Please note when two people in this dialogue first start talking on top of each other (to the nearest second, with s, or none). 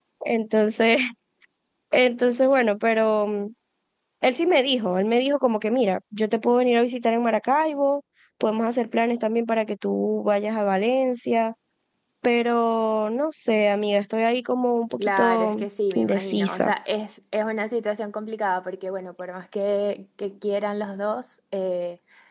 15 s